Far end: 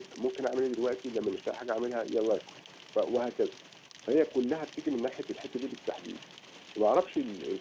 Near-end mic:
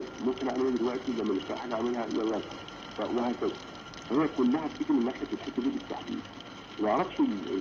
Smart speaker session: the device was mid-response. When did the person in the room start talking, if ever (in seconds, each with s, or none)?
none